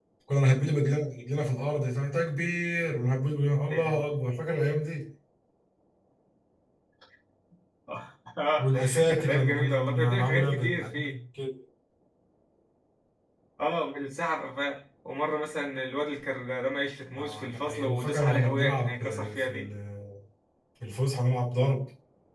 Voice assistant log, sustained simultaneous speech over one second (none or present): present